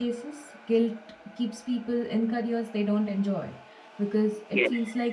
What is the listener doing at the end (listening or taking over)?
taking over